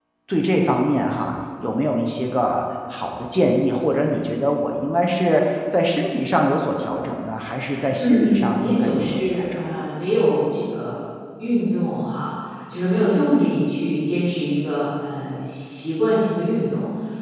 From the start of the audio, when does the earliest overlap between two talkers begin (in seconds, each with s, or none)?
8.0 s